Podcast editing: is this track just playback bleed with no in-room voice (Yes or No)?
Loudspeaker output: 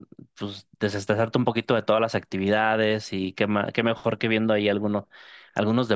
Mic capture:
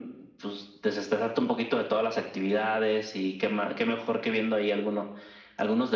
Yes